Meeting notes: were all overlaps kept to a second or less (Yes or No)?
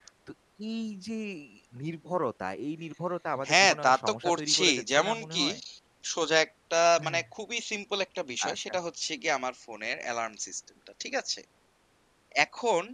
No